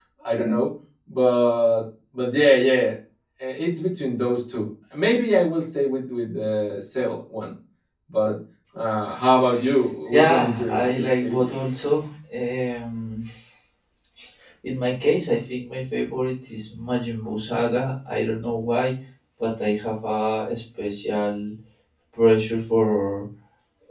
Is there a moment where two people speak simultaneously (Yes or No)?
Yes